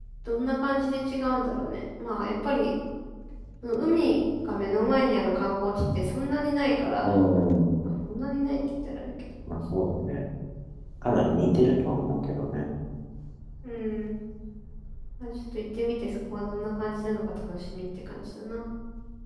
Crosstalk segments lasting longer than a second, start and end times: none

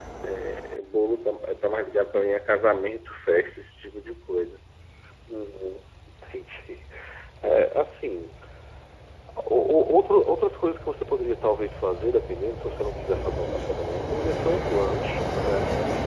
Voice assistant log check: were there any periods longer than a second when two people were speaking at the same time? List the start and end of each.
none

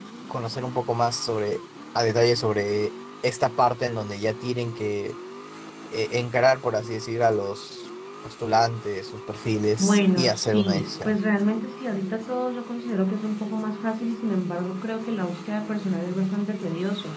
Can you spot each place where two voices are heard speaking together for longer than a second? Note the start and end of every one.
9.8-11.2

